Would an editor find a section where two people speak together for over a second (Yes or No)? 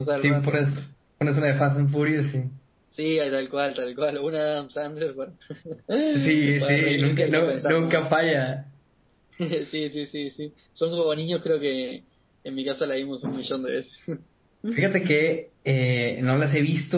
Yes